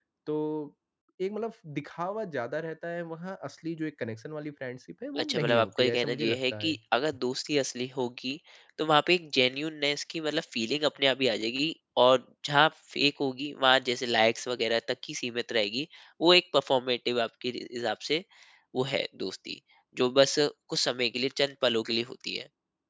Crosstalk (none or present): present